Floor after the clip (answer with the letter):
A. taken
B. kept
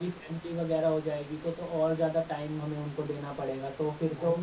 A